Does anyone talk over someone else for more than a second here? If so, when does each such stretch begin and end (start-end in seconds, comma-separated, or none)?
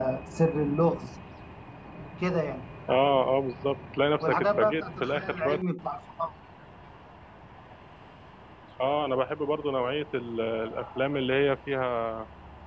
4.2-5.6